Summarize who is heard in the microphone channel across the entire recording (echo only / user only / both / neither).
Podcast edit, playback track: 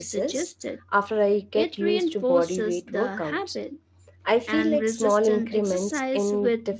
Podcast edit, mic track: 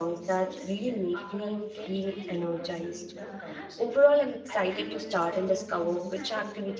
both